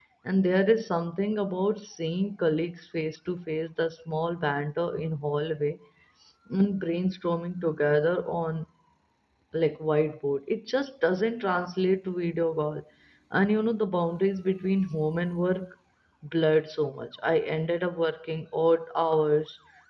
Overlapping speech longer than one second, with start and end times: none

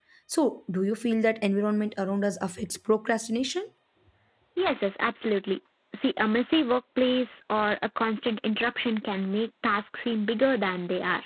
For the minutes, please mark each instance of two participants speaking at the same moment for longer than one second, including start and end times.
none

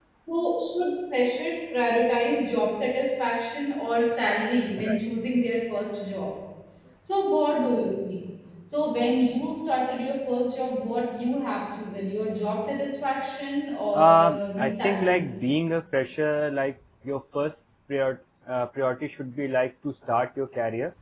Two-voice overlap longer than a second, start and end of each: 13.9-15.2

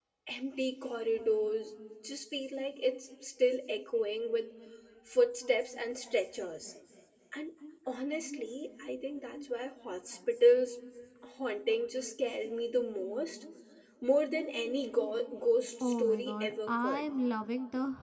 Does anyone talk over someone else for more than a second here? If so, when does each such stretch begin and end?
15.8-17.1

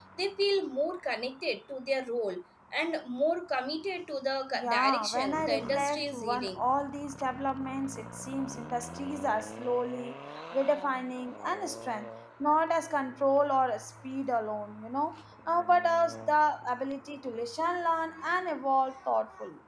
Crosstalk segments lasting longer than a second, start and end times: 4.5-6.6

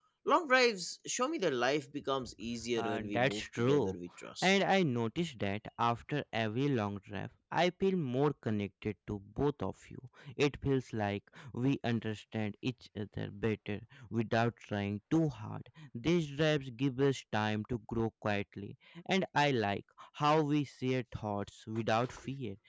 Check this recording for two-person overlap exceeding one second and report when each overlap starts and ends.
2.8-4.0

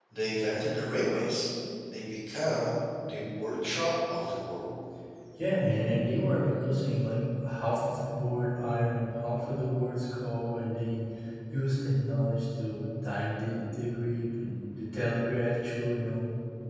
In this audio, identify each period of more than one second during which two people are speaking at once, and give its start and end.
none

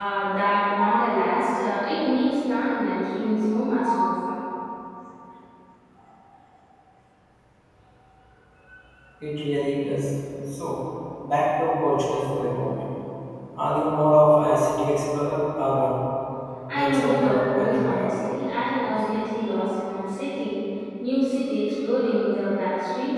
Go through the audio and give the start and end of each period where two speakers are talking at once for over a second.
16.7-18.2

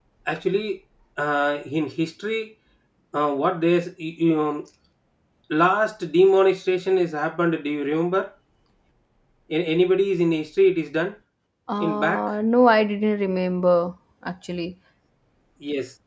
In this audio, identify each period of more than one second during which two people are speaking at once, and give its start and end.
none

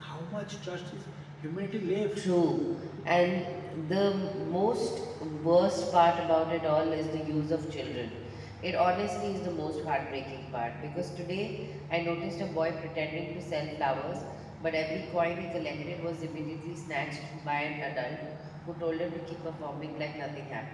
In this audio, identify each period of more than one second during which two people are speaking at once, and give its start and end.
none

